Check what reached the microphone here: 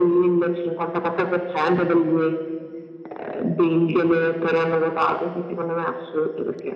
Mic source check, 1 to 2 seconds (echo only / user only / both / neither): echo only